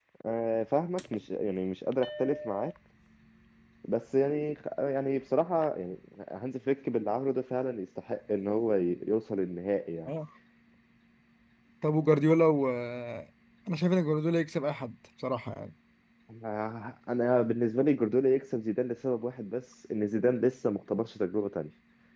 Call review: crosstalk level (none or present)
none